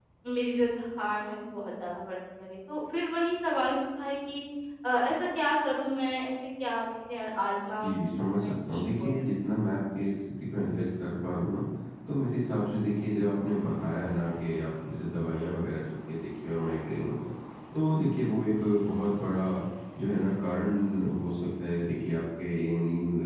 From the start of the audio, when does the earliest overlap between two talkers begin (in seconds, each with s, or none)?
7.8 s